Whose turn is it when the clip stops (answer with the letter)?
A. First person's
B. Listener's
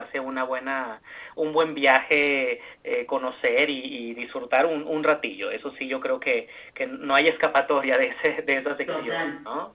B